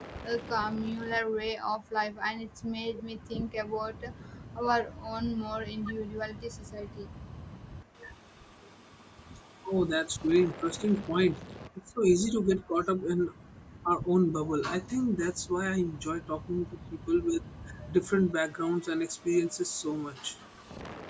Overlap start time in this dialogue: none

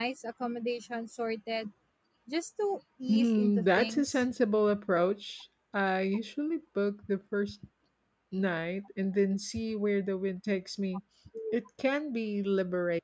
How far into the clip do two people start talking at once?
3.1 s

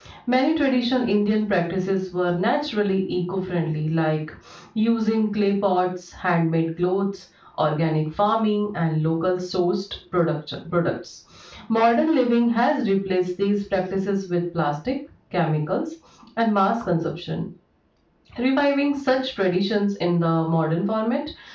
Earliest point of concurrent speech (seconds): none

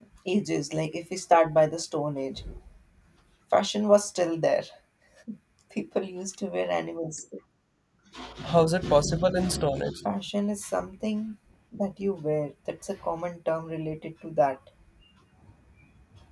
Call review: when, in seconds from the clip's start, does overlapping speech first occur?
none

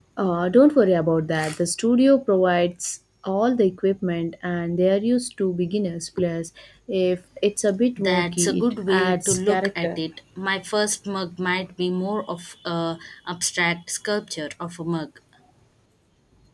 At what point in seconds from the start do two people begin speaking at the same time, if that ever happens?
8.0 s

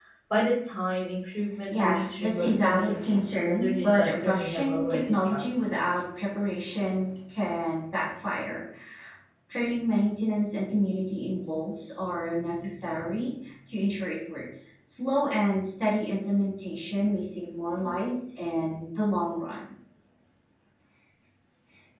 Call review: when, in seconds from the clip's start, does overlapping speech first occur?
1.7 s

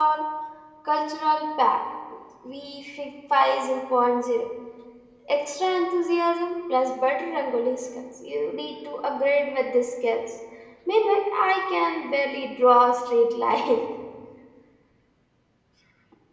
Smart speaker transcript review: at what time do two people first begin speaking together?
none

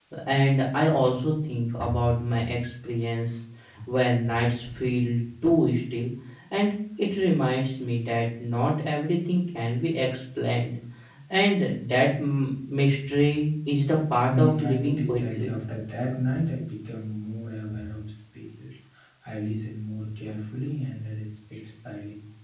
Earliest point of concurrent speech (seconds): 14.3 s

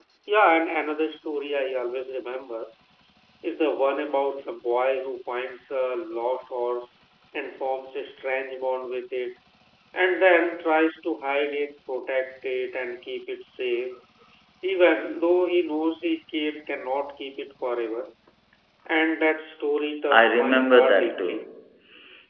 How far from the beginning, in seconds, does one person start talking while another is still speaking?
20.1 s

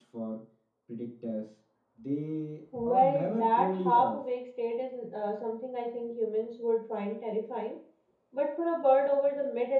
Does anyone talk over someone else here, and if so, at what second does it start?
2.7 s

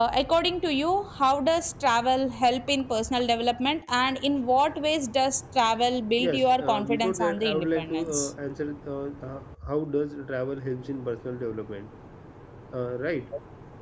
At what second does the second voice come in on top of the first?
6.2 s

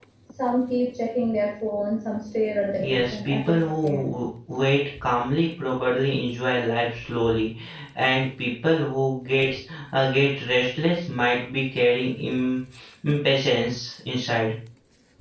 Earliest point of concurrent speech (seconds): 2.8 s

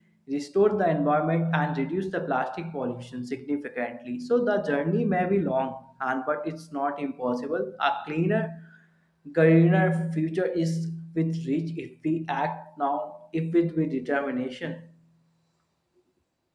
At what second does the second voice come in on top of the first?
none

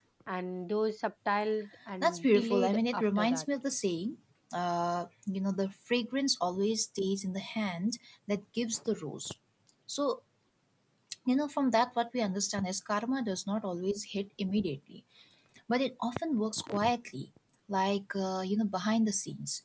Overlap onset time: 2.0 s

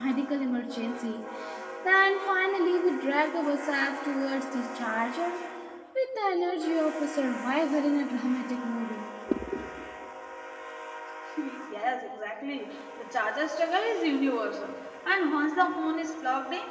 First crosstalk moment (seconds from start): none

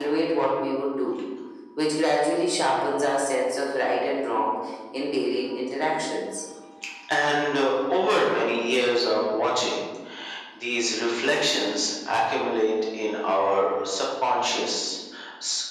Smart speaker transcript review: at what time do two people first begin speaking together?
none

